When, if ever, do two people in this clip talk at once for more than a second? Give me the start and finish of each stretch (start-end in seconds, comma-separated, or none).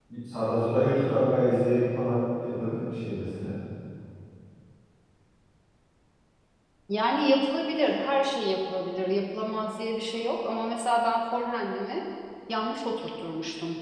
none